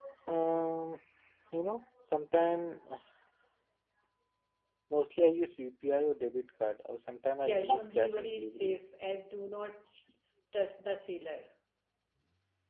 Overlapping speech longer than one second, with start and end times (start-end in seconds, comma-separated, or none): 7.4-8.8